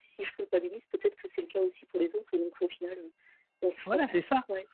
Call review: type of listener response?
taking over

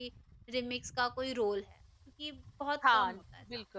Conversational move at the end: taking over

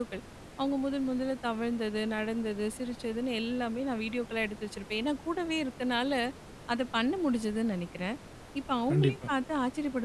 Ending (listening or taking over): listening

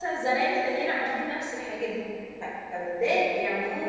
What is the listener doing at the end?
taking over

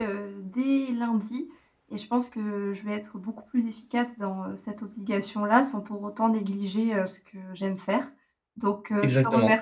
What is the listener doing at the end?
listening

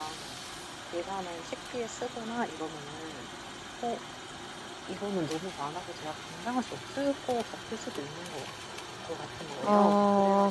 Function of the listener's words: taking over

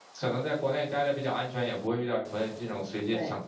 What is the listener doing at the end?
listening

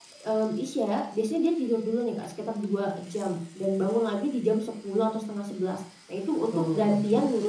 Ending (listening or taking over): listening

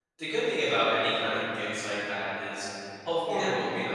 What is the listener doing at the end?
listening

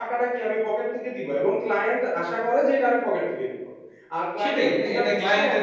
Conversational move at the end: taking over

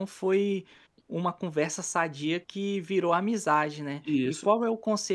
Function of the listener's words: listening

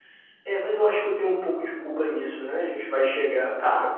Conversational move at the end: listening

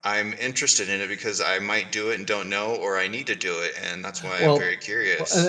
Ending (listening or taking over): taking over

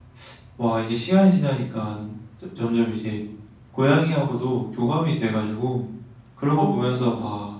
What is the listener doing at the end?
listening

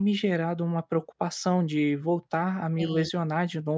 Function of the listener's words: listening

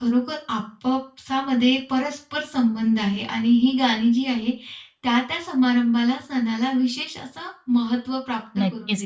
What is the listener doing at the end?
taking over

